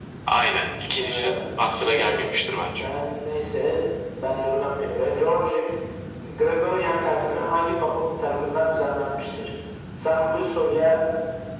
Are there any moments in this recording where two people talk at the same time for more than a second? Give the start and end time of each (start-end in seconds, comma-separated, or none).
1.0-2.2